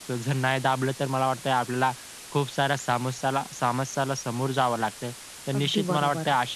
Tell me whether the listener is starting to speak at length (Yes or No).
No